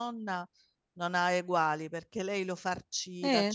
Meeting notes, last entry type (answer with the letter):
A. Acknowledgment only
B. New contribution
A